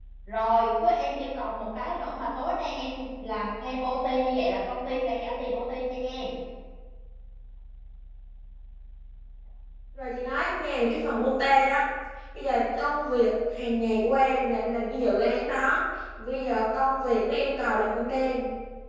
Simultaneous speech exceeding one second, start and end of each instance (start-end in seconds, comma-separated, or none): none